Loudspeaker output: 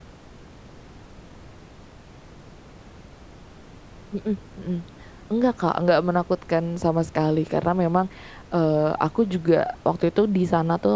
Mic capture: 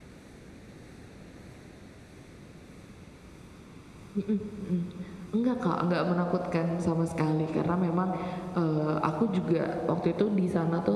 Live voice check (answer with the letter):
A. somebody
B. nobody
B